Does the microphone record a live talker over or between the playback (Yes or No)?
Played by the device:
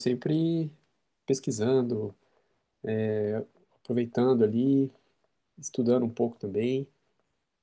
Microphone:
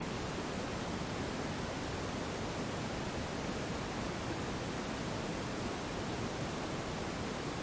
No